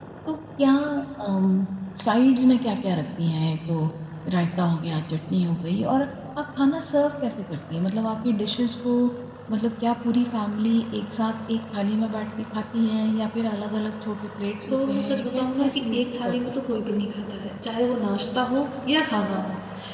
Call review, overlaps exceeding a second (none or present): present